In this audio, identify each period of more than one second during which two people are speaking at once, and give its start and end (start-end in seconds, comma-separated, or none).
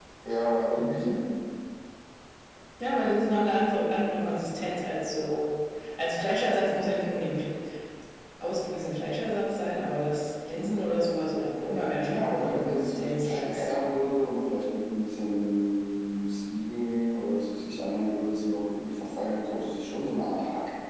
12.0-13.7